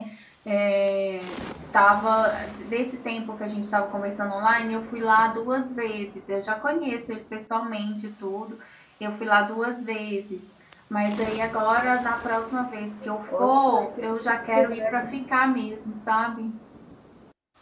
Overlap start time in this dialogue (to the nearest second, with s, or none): 13 s